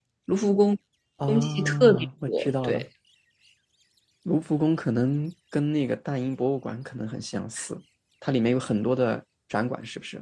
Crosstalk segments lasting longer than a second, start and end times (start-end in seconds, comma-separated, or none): 1.3-2.8